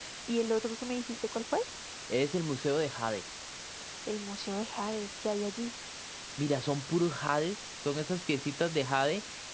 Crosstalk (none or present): none